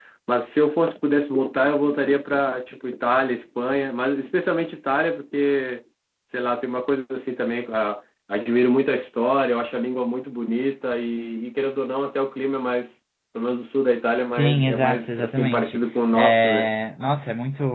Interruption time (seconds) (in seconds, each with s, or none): 14.4 s